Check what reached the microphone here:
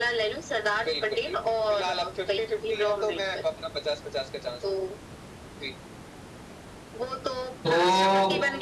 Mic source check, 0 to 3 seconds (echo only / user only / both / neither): echo only